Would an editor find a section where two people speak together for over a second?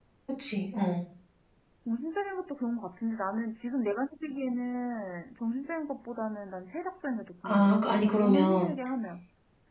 Yes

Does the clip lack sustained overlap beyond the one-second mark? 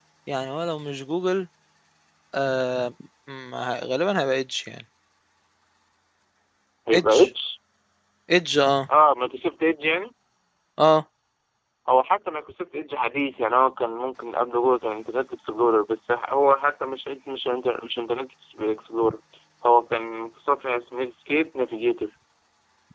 Yes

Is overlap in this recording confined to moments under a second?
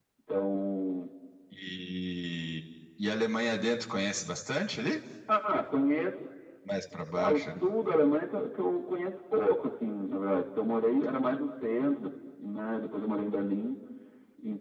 Yes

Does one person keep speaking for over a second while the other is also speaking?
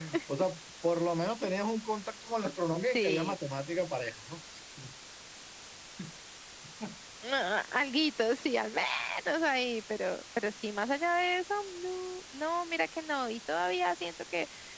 No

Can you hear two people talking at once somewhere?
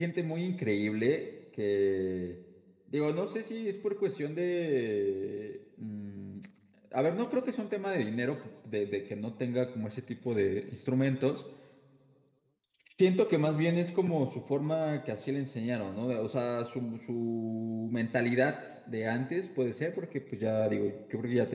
No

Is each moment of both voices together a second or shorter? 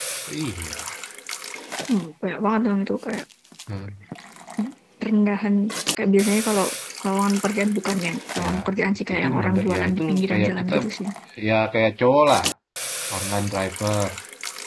No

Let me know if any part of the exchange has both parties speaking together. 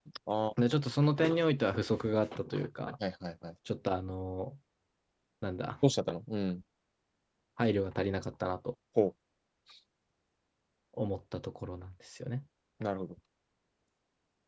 No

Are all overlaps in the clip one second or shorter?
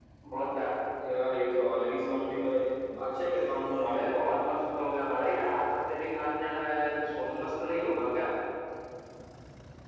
Yes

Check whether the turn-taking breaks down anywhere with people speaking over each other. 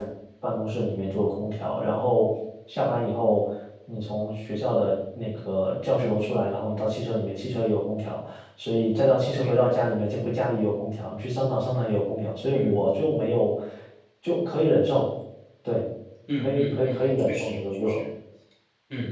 Yes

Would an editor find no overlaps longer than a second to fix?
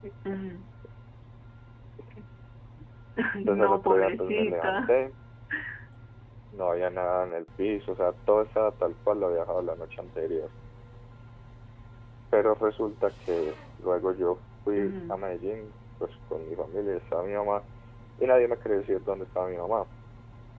No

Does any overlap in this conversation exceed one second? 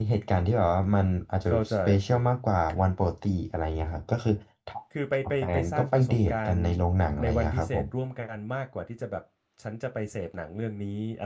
Yes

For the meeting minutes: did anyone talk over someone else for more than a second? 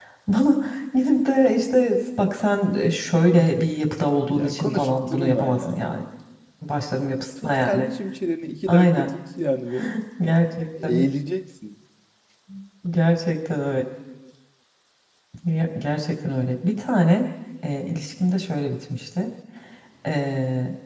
Yes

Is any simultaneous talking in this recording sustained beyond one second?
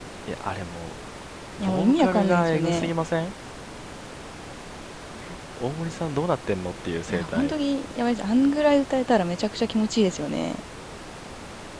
Yes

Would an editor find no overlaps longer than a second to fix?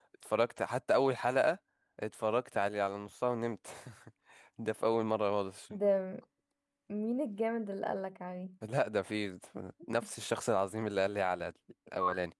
Yes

